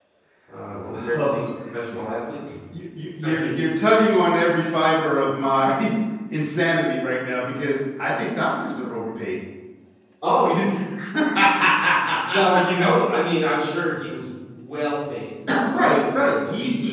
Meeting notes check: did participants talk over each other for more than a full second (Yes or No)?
Yes